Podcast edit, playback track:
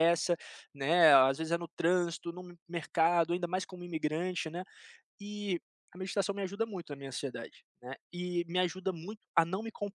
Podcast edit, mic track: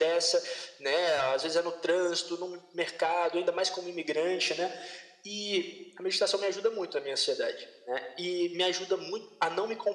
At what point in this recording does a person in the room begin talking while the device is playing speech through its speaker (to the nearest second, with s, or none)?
none